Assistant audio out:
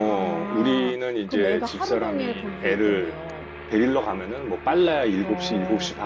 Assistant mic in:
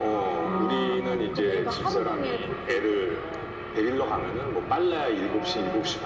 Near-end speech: present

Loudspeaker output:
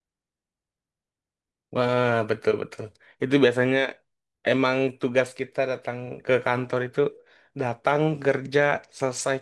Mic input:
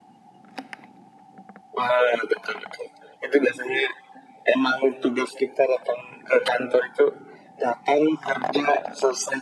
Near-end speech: none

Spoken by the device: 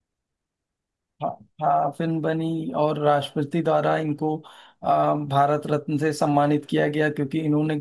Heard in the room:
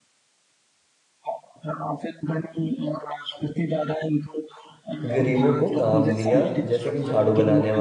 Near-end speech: present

